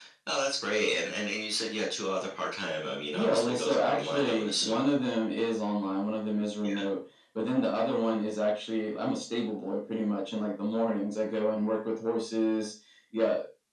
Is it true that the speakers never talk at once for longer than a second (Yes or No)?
No